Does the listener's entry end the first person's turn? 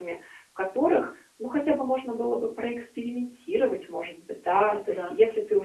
No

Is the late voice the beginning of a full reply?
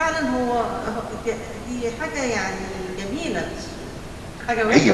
Yes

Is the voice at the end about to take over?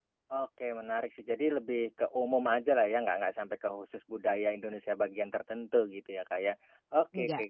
No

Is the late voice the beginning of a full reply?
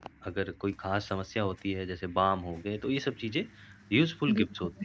No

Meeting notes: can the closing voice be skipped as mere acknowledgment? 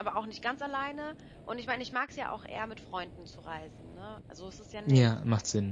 No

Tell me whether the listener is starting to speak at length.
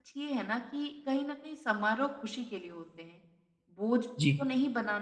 No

